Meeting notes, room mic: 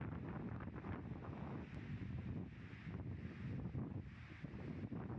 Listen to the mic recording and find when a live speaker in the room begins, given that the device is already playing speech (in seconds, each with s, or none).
none